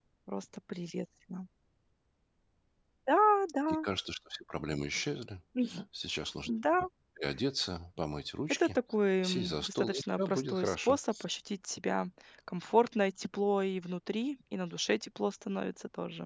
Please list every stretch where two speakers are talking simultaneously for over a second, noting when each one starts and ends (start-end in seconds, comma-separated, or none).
9.2-11.0